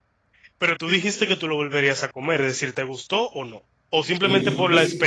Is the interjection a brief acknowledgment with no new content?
No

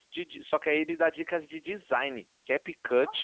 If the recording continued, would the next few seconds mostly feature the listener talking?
No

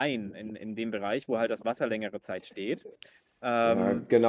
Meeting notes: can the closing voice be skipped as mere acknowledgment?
No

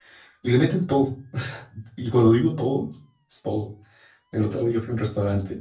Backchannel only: Yes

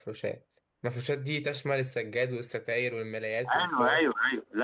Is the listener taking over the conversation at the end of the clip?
Yes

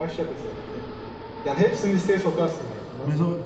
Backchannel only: No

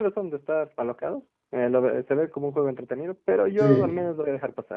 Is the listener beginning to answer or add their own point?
No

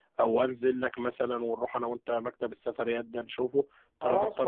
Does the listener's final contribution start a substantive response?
Yes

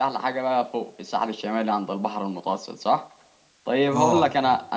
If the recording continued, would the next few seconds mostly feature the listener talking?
No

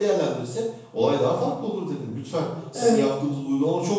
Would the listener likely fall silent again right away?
Yes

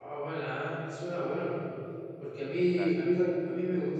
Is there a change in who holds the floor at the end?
No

